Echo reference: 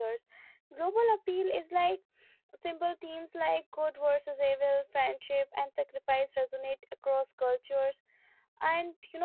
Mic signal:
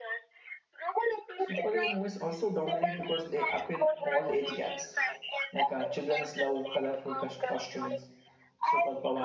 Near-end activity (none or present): present